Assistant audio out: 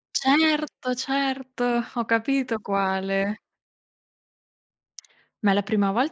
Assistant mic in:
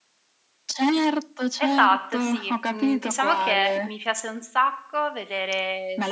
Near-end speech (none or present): present